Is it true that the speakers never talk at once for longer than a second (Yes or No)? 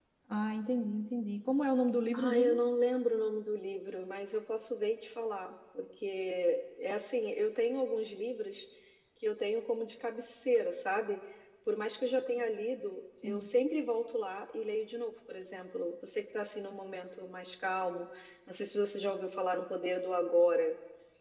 Yes